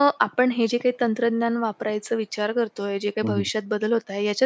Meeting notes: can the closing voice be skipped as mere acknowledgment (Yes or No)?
Yes